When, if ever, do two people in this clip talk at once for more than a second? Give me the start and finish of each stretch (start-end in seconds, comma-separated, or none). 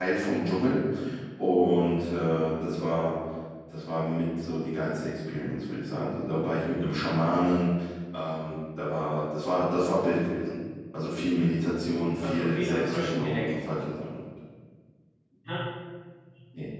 12.2-13.5